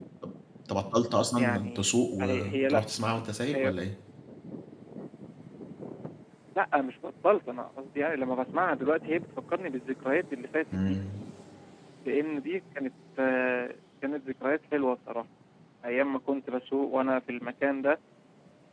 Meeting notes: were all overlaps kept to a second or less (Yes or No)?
No